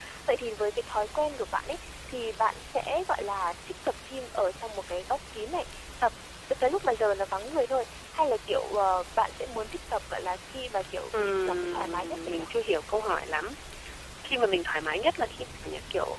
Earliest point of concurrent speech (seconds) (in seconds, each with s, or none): 11.1 s